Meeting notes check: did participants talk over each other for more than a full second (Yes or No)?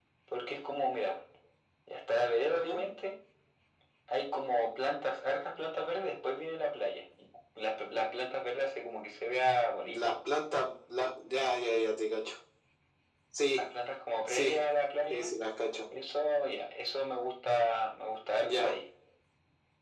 No